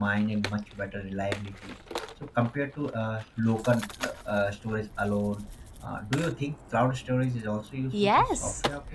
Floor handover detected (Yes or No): Yes